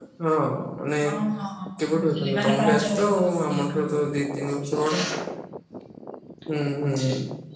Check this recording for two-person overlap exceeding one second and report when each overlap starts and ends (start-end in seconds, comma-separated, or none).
1.8-3.9